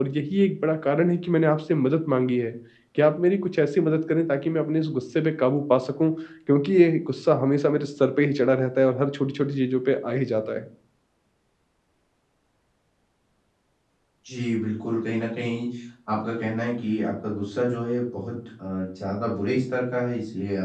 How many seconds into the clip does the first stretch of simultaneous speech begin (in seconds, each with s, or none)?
none